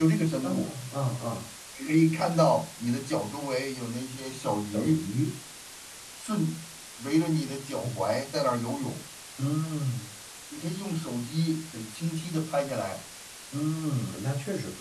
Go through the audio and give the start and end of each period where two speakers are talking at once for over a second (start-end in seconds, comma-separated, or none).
none